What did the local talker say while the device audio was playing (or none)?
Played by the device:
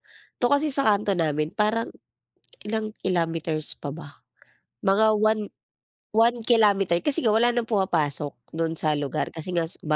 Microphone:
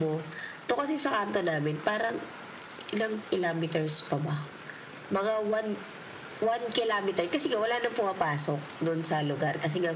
none